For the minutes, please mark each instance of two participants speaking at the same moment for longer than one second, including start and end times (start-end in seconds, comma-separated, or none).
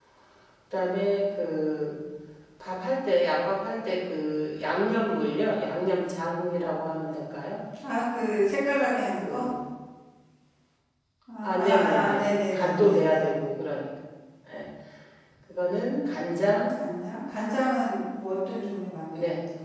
11.4-13.3